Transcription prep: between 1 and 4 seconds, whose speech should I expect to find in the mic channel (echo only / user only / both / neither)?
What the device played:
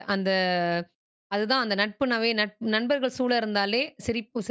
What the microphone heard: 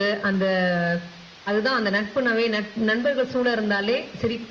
echo only